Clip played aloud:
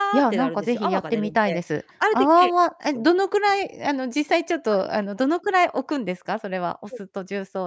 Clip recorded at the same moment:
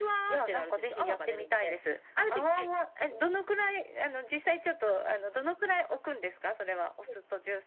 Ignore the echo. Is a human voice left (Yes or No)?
No